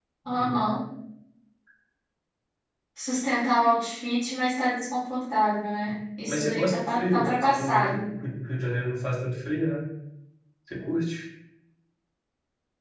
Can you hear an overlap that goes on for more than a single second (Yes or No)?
Yes